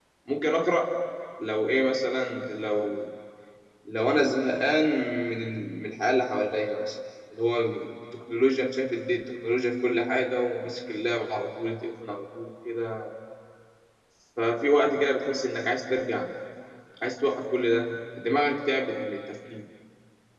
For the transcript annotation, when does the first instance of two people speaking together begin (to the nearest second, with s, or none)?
none